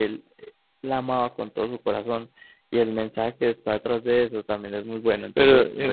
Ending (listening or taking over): taking over